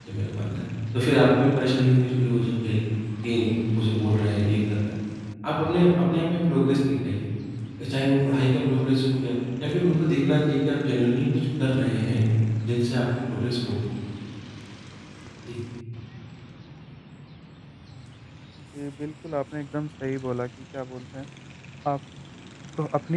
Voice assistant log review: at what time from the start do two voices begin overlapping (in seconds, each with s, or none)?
none